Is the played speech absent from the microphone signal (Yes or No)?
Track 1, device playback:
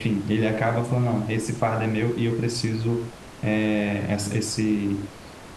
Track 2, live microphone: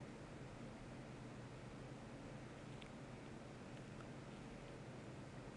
Yes